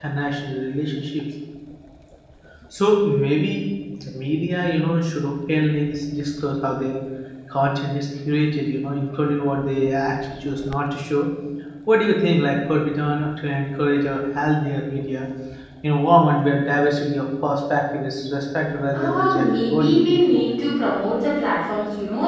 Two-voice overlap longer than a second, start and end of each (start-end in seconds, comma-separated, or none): 18.9-20.6